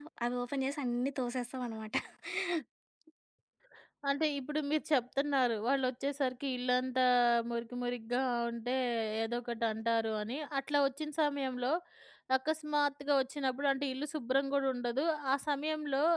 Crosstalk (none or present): none